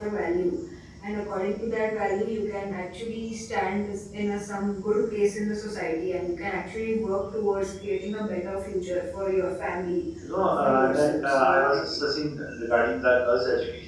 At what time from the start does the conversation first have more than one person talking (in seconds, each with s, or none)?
10.4 s